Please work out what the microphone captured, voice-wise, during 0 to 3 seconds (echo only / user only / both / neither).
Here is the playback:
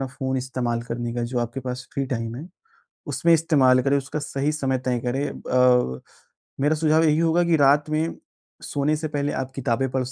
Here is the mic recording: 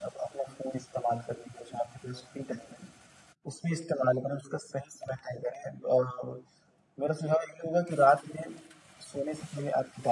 echo only